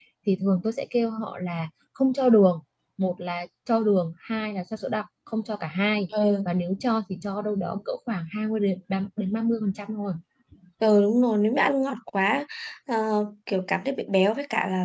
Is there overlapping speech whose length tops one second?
No

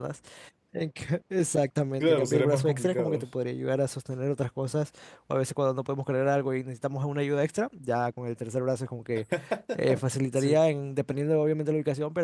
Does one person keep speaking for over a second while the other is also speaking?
Yes, from 2.0 s

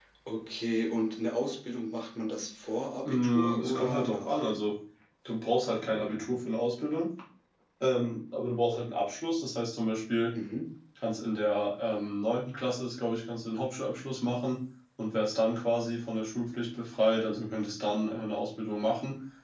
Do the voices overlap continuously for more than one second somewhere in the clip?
Yes, from 3.0 s

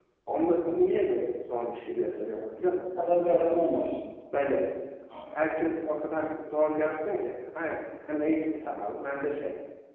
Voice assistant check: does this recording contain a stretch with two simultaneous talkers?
No

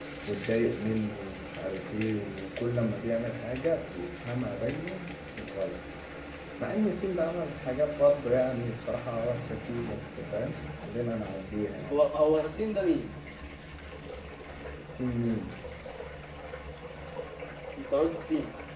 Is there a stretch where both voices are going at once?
No

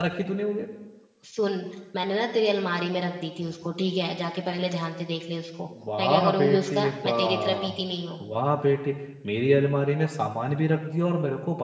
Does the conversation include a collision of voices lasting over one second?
Yes, from 5.7 s

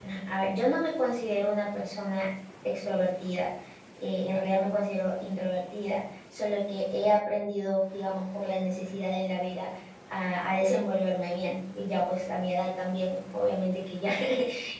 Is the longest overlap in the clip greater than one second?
No

